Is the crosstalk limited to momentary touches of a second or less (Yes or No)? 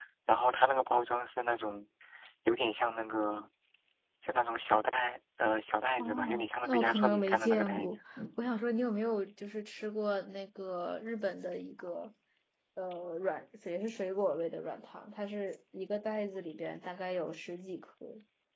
No